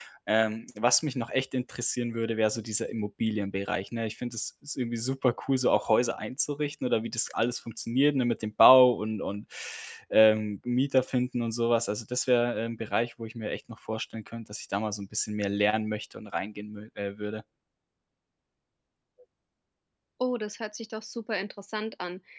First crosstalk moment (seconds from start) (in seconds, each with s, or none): none